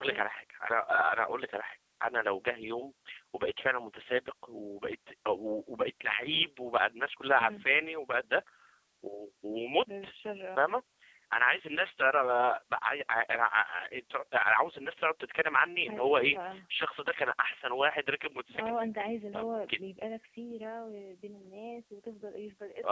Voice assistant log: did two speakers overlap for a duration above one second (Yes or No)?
Yes